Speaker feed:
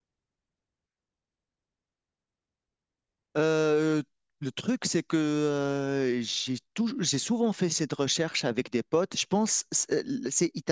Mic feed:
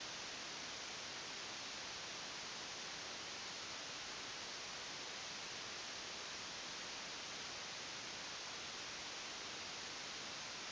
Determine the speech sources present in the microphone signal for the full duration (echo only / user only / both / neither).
neither